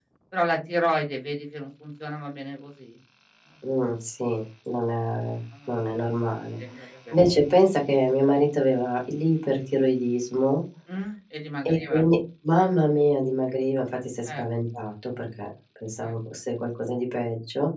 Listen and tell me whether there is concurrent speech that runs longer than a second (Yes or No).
No